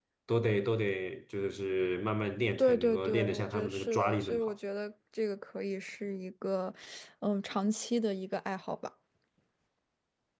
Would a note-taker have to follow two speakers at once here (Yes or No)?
Yes